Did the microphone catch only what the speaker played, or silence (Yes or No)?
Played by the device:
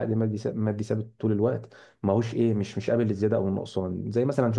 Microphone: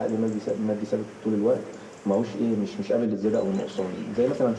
Yes